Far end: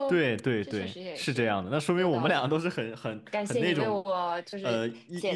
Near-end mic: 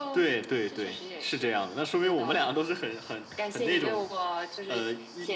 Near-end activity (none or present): none